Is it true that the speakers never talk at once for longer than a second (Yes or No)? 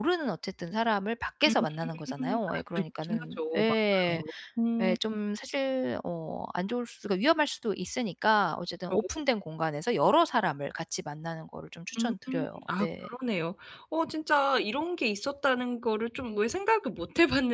No